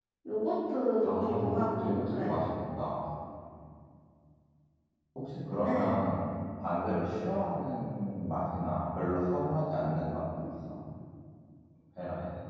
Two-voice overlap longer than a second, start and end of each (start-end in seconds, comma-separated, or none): 1.0-2.3